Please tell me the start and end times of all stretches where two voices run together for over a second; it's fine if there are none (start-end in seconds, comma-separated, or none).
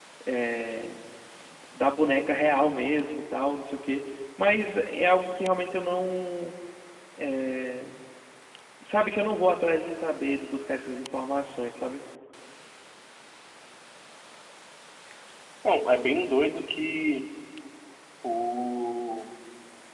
none